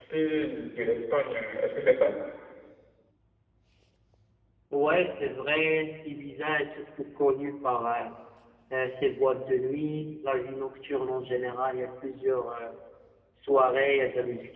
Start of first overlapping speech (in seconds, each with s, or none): none